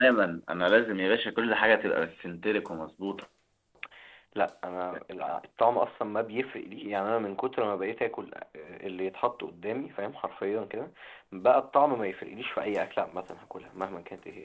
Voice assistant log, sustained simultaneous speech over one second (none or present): none